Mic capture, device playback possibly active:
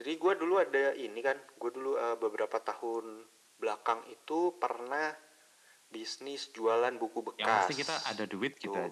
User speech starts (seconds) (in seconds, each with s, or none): 7.4 s